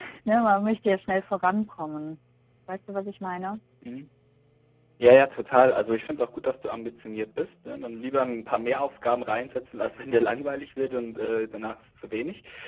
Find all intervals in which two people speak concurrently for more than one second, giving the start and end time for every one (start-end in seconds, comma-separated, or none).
none